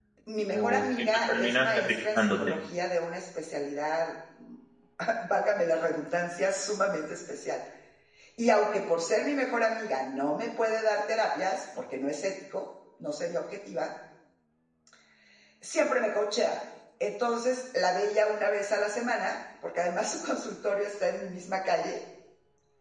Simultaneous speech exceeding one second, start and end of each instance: 0.5-2.5

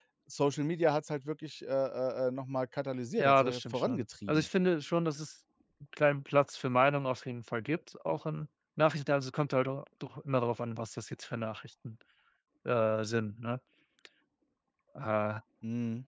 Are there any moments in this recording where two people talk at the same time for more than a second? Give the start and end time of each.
3.2-4.5

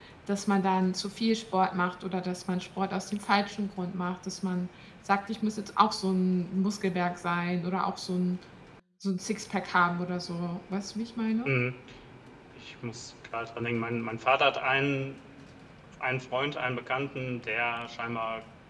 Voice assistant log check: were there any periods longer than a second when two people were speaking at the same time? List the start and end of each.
none

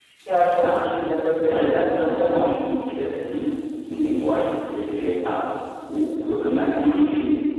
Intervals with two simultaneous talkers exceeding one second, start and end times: 1.5-2.7

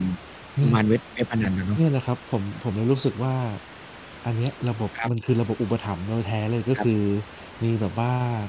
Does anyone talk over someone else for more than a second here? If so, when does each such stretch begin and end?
none

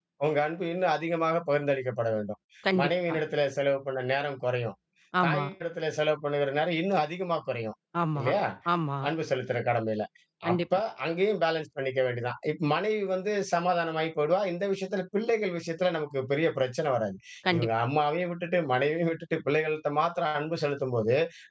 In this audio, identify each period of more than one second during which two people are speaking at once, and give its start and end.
none

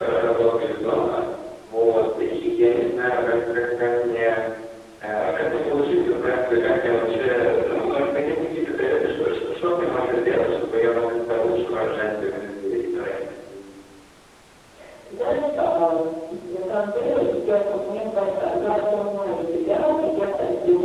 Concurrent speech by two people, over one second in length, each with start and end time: none

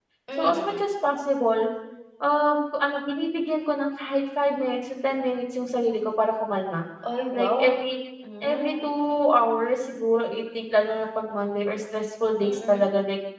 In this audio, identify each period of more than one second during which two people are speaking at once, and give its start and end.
none

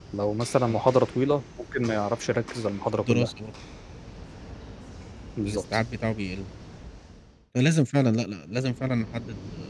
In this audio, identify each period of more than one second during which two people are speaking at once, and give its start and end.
none

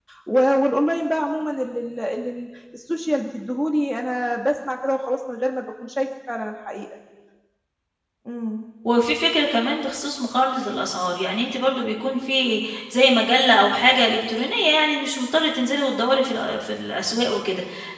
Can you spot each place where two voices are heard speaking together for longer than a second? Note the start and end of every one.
none

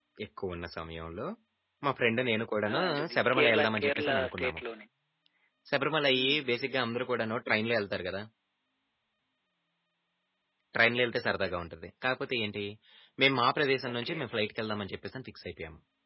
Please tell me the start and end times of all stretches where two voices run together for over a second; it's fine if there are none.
2.7-4.6

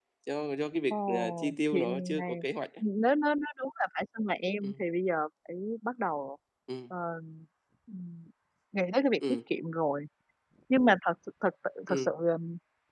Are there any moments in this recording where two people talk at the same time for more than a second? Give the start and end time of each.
0.9-2.2

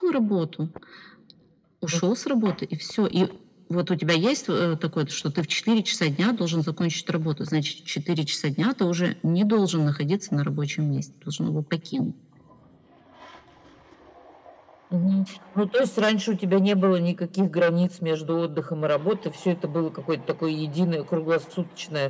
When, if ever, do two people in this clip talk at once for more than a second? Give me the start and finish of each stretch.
none

